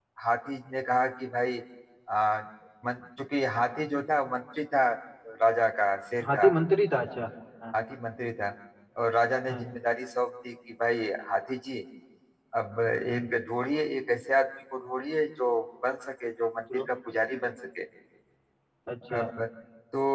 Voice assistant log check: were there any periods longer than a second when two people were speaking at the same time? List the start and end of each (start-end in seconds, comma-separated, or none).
none